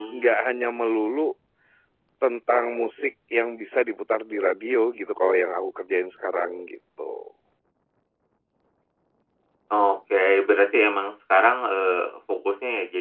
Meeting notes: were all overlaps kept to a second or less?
Yes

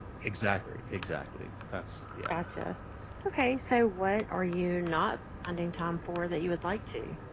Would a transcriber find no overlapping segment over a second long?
Yes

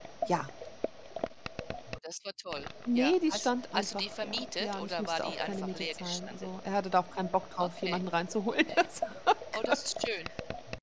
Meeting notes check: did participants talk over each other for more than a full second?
Yes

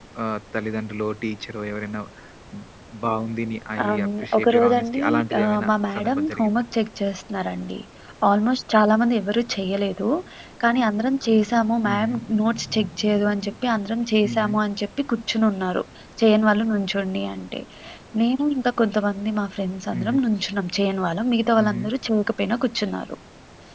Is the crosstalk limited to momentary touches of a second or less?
No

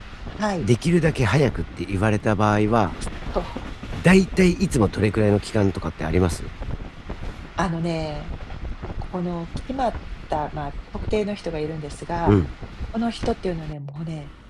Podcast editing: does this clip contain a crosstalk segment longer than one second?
No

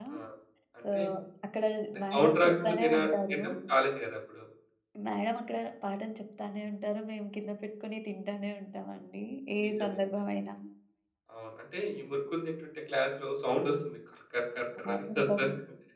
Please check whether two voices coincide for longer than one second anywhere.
Yes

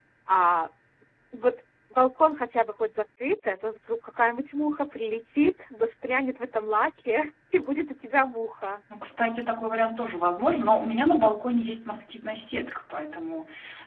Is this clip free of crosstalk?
Yes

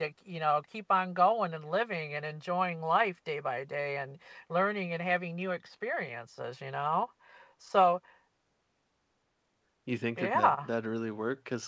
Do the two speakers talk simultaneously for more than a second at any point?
No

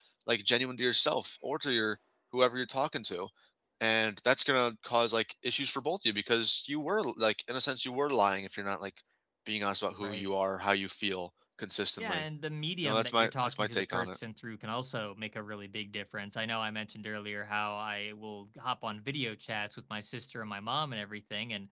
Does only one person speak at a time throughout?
No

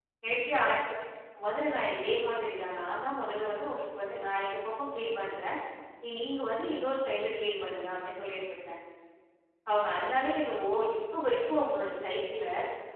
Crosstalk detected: No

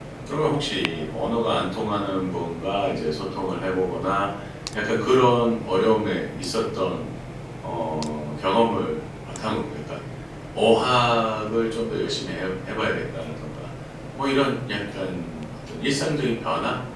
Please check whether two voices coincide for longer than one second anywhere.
No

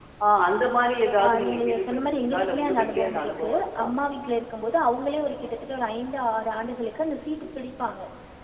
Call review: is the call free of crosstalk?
No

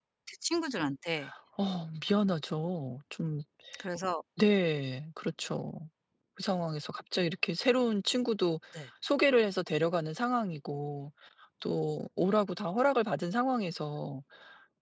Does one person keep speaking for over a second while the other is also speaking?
No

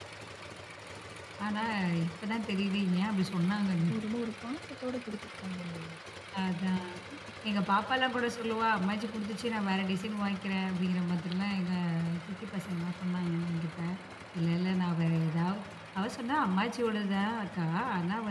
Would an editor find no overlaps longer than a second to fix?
Yes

